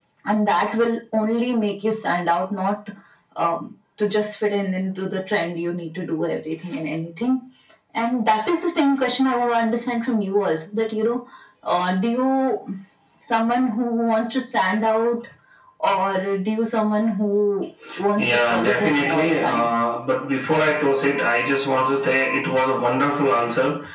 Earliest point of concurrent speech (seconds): 18.2 s

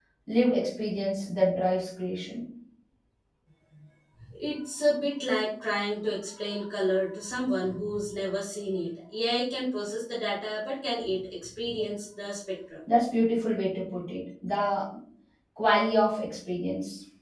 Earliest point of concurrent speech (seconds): none

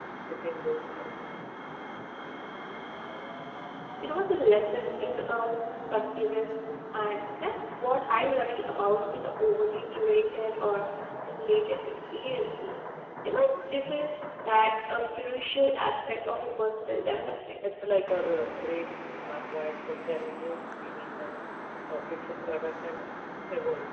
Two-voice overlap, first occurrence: none

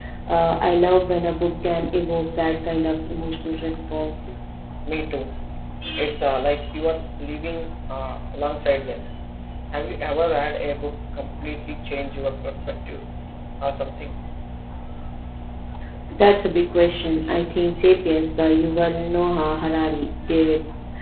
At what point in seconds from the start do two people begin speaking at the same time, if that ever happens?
none

